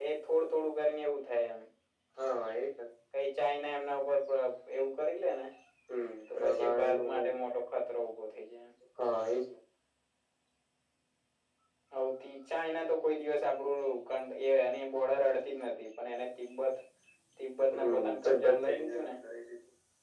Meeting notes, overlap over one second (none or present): present